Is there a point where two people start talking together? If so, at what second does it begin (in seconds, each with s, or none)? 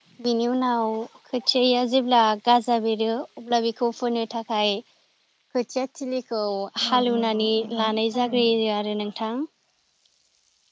6.9 s